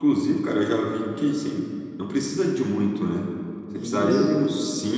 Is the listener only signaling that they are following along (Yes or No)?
Yes